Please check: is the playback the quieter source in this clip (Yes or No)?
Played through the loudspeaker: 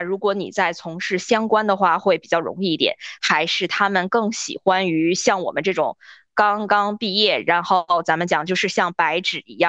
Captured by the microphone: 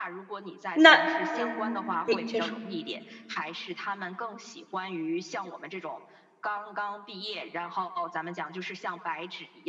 Yes